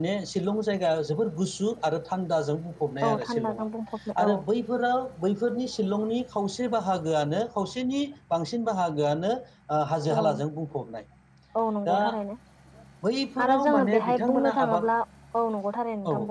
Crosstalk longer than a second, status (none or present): present